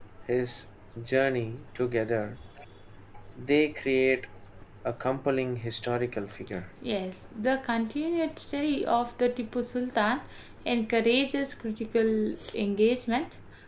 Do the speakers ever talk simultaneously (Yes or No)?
No